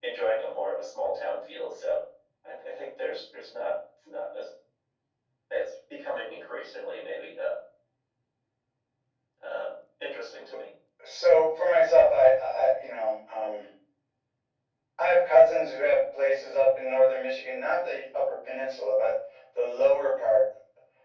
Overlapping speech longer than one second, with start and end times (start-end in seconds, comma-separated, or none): none